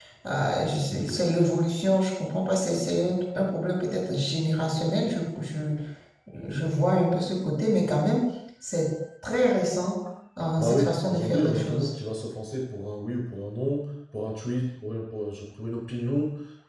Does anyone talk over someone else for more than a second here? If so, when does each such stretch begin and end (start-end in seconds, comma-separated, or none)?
10.6-11.9